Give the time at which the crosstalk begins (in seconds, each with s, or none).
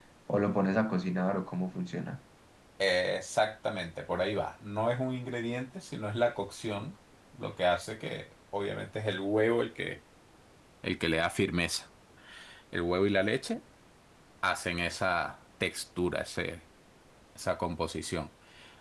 none